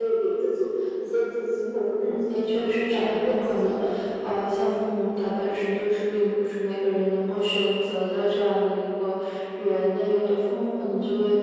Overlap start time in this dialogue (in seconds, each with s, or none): 2.1 s